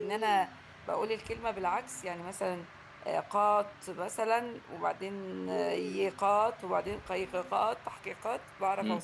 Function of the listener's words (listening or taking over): taking over